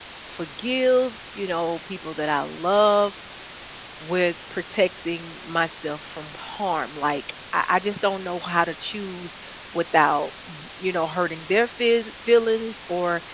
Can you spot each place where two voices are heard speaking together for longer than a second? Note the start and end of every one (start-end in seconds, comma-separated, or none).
none